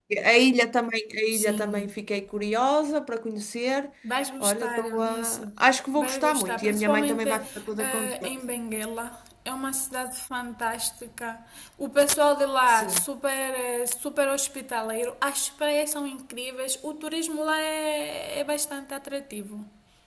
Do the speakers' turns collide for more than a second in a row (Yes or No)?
Yes